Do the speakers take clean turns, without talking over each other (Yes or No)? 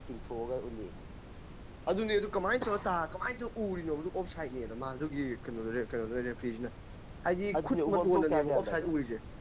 No